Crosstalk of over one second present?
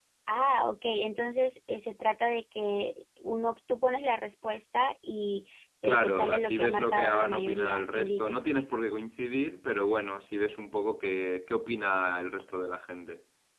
Yes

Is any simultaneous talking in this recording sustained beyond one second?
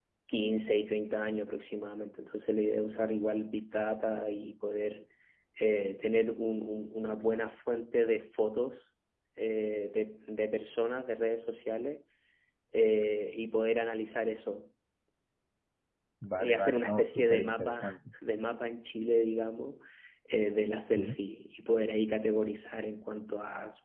Yes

